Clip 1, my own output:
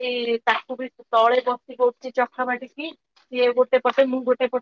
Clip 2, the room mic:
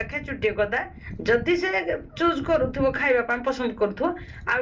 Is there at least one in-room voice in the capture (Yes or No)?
Yes